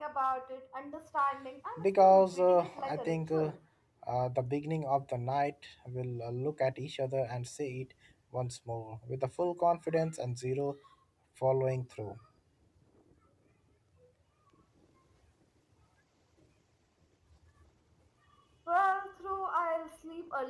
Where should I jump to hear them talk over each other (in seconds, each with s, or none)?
1.8 s